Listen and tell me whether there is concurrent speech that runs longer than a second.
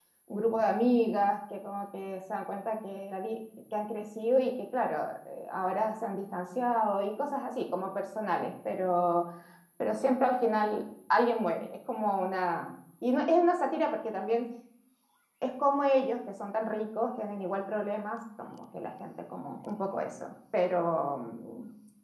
No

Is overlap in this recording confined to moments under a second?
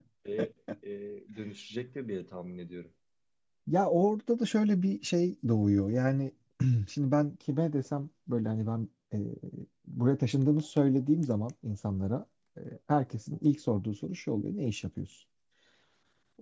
Yes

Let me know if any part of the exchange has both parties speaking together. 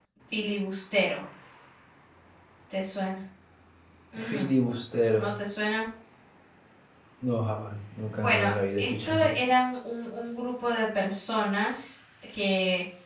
Yes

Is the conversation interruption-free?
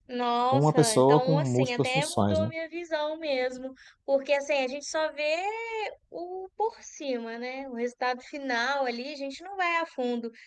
No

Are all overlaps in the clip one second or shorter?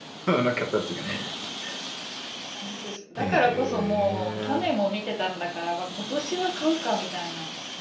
No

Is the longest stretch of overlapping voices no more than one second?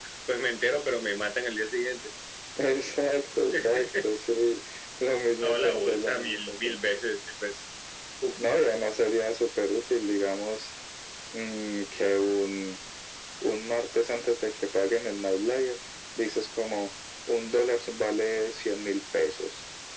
No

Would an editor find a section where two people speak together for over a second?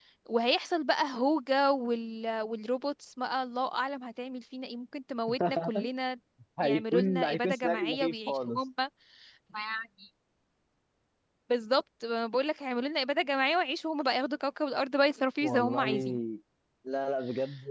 Yes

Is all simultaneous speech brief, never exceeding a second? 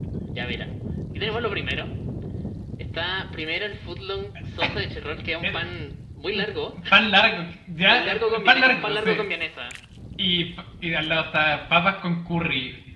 No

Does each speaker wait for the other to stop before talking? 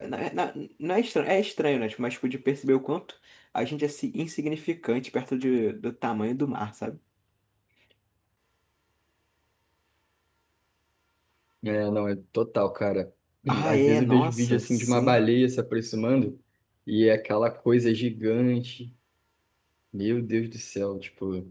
No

